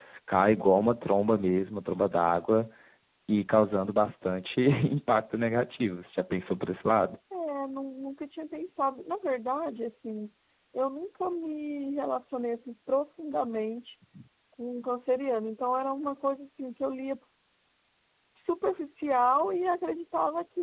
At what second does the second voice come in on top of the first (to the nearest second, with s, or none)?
none